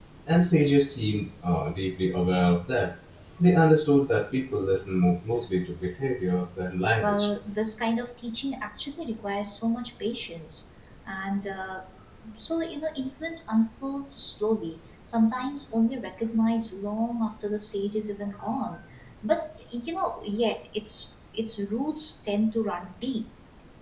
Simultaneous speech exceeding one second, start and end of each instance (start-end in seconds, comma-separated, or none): none